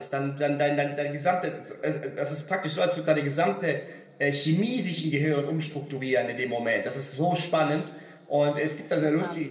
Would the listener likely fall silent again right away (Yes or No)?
Yes